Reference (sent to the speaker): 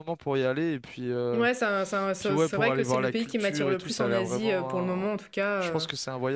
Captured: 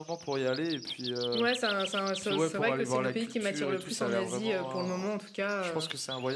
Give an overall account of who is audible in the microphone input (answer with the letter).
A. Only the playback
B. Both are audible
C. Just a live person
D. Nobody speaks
A